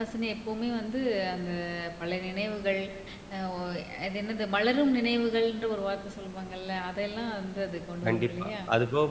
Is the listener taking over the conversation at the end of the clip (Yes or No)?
Yes